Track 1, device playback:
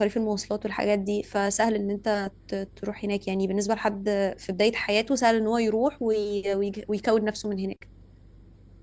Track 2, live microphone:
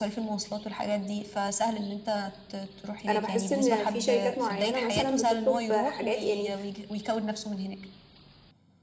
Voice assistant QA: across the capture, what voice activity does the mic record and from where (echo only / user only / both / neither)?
both